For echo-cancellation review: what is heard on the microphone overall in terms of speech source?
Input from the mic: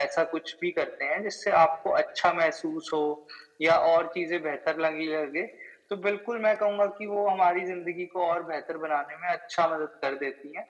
echo only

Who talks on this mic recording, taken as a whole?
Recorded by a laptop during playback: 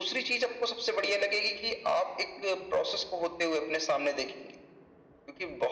echo only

